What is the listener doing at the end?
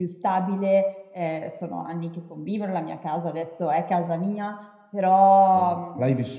taking over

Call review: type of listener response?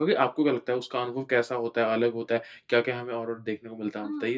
taking over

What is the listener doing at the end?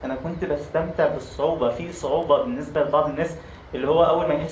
listening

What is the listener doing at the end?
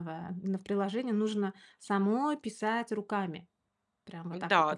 taking over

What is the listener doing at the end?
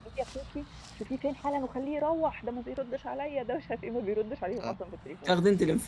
taking over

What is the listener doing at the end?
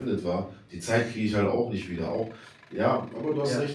listening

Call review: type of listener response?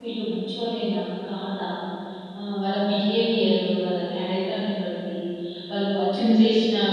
listening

